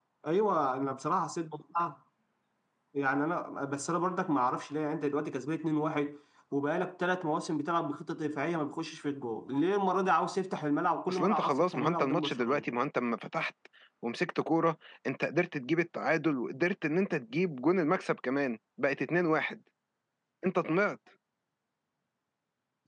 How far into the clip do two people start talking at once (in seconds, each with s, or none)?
11.1 s